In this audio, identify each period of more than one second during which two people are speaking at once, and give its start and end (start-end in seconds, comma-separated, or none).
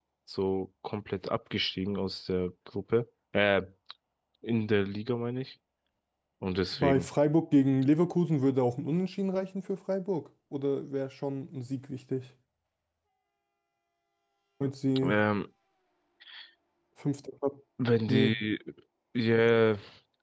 none